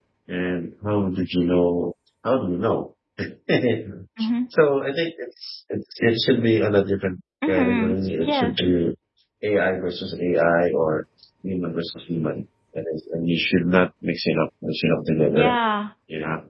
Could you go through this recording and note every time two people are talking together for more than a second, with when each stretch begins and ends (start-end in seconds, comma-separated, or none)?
7.5-8.7